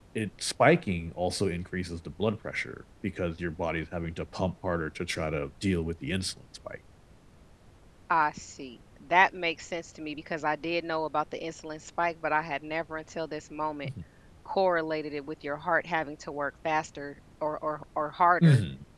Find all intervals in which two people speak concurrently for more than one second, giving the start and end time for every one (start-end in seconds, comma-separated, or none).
none